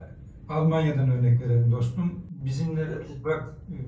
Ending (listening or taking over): listening